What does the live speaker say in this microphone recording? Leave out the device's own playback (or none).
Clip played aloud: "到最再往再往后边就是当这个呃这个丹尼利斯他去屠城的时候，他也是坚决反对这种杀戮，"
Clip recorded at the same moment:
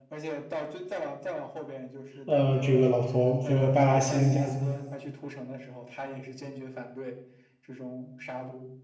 呃，这个老头儿这个拜拉希恩家族。